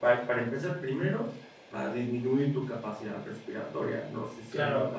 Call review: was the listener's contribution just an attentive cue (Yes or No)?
No